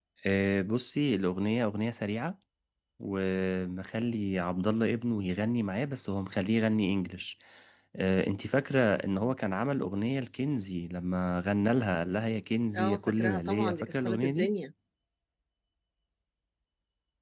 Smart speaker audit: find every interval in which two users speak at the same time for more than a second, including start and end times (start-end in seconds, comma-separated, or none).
12.7-14.5